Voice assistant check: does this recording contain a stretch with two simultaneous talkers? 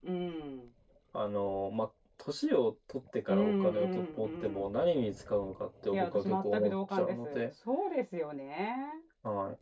Yes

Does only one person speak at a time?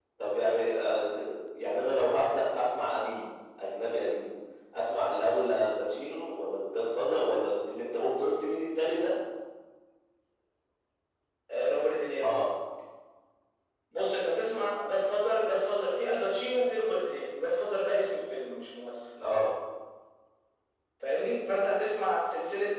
Yes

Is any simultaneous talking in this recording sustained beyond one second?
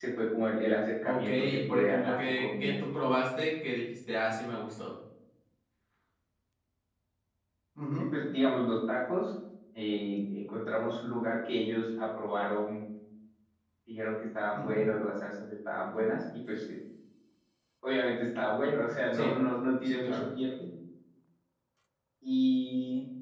Yes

